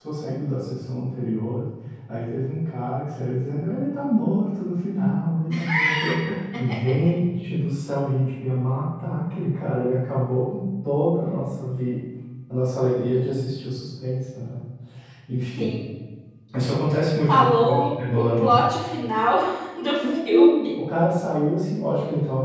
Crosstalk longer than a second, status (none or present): present